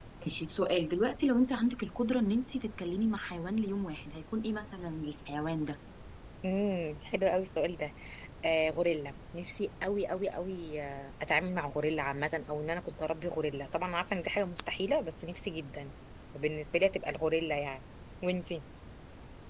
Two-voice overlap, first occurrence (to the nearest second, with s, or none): none